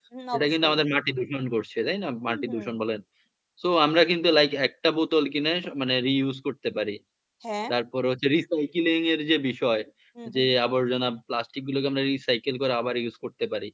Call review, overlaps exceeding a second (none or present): none